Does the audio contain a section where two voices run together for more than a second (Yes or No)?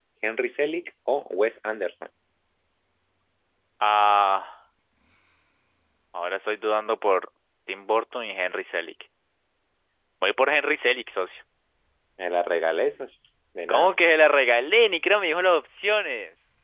No